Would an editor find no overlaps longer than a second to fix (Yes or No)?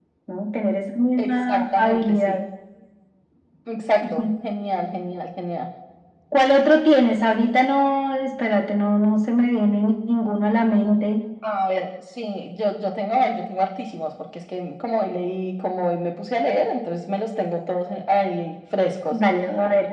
No